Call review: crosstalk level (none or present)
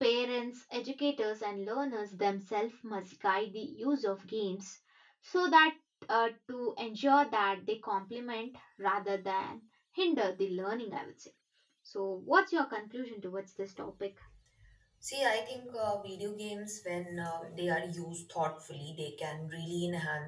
none